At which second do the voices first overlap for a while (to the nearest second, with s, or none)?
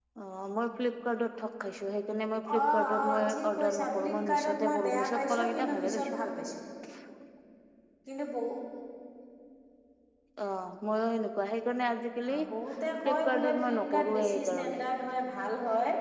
3 s